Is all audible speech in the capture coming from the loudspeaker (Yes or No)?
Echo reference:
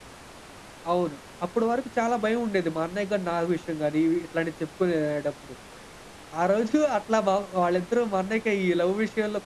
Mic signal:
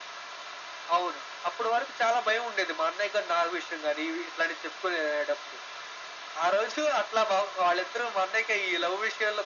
Yes